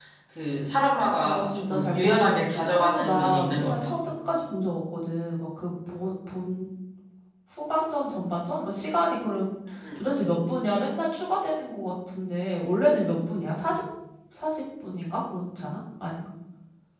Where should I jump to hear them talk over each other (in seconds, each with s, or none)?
1.2 s